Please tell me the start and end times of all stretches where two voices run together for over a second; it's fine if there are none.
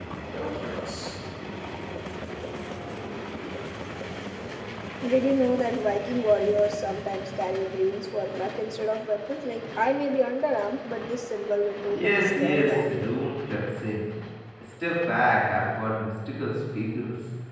11.9-13.2

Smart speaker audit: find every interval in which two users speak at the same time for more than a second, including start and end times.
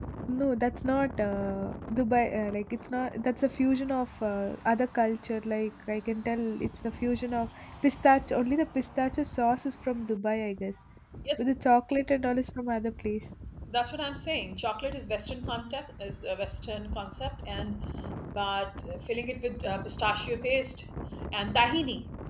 none

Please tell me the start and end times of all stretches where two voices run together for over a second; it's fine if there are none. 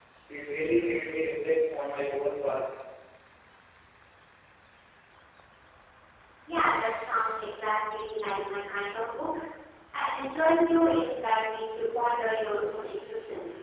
none

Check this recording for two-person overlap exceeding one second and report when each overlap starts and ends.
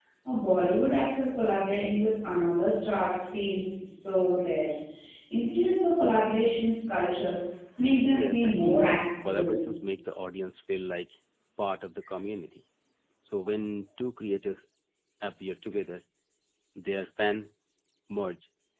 8.0-9.6

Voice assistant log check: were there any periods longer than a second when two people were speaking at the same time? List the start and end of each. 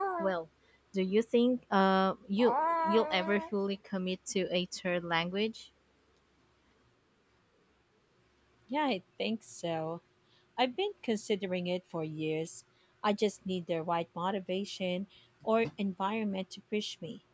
none

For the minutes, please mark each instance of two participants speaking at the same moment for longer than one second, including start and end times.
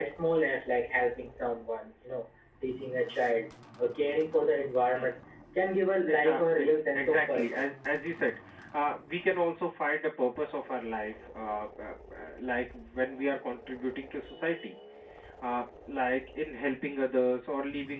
6.1-7.7

